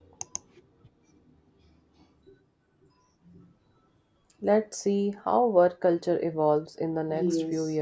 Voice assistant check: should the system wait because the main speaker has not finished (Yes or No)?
No